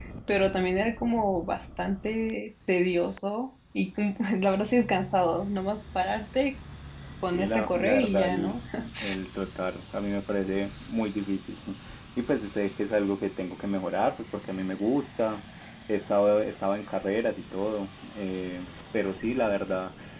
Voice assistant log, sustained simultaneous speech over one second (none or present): present